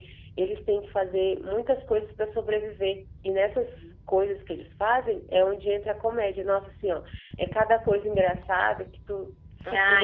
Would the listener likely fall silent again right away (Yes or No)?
No